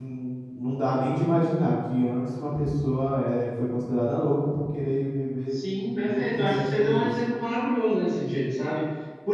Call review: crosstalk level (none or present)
present